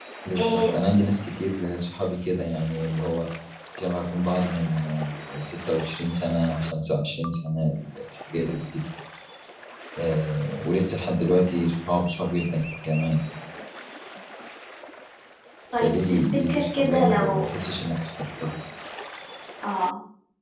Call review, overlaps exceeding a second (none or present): present